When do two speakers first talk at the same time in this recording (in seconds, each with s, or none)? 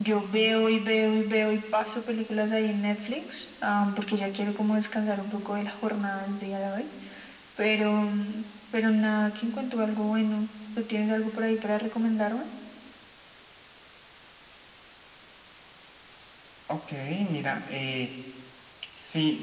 none